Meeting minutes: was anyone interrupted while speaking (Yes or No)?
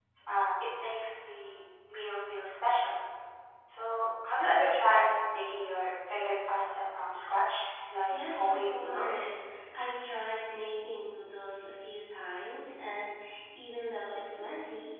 Yes